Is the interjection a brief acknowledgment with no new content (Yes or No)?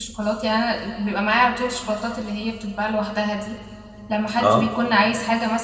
Yes